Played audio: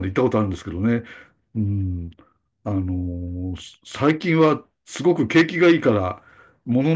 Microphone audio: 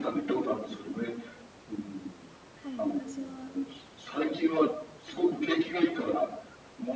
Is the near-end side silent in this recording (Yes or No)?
No